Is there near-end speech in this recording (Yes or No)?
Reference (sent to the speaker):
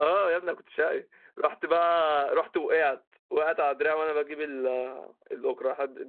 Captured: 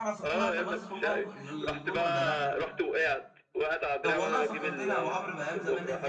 Yes